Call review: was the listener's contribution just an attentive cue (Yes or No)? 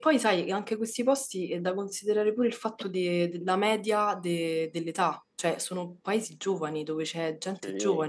Yes